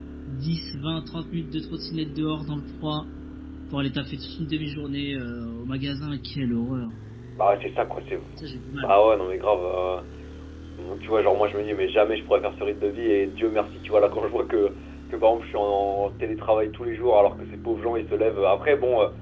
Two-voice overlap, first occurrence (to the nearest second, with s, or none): none